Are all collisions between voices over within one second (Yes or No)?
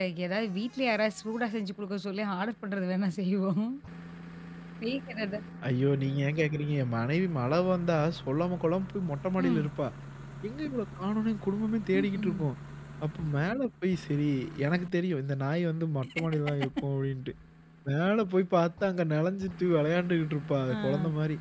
Yes